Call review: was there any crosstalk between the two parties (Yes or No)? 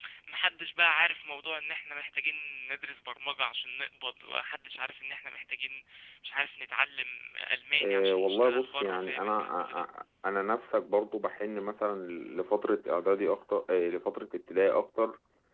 Yes